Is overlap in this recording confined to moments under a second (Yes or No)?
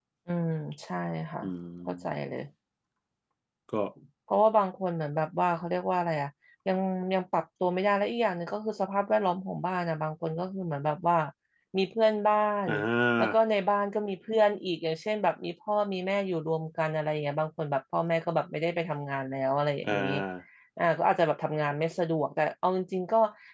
Yes